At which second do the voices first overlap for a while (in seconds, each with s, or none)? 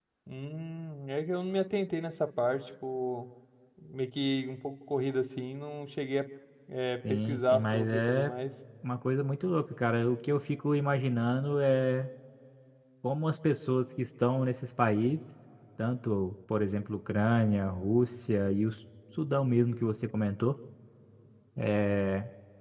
7.1 s